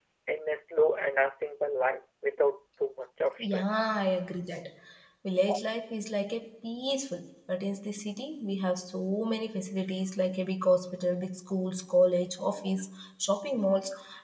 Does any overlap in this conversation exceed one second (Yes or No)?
No